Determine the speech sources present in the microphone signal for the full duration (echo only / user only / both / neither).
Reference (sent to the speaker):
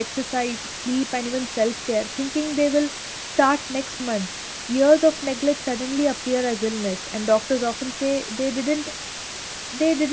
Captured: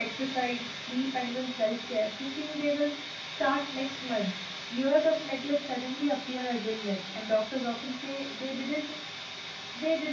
echo only